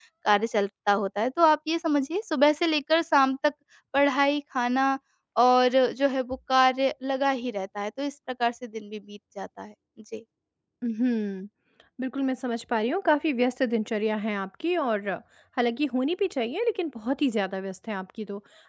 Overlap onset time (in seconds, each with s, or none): none